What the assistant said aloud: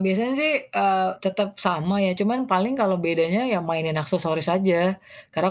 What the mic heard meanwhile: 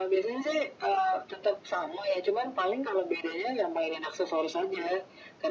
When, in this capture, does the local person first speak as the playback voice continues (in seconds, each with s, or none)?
none